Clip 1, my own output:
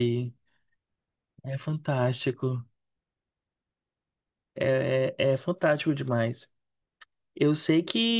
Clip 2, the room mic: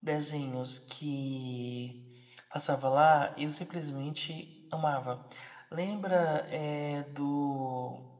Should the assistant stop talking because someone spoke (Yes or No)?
Yes